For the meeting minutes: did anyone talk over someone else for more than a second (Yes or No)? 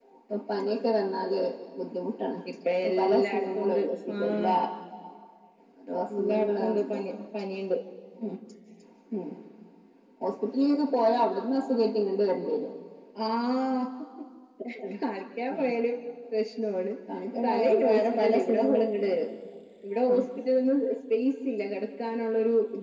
Yes